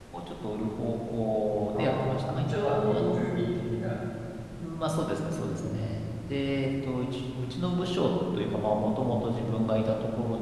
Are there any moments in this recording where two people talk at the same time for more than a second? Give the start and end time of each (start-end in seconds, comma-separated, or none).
1.7-3.5